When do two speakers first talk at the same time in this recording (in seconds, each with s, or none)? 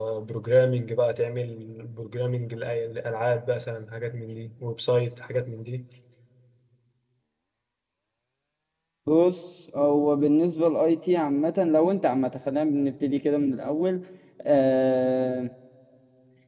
none